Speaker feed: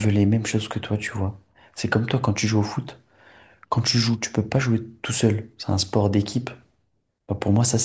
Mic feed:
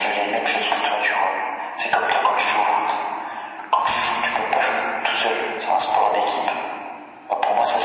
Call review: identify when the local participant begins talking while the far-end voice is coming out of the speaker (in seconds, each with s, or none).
none